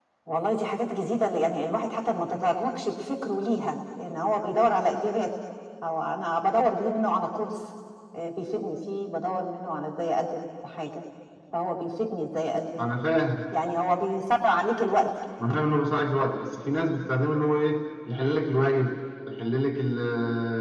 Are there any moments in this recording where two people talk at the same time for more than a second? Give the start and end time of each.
none

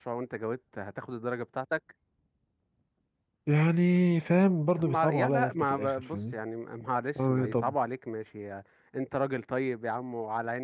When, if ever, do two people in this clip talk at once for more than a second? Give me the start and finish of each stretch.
4.8-6.4

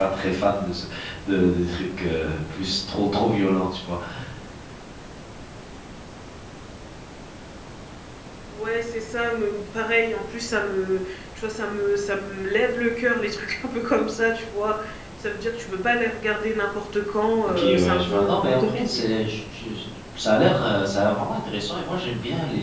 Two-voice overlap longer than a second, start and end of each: 17.4-19.1

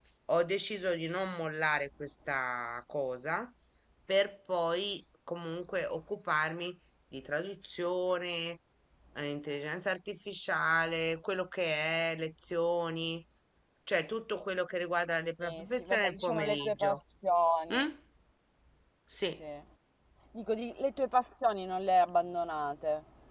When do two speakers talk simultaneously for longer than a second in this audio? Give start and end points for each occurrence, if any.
15.3-17.0

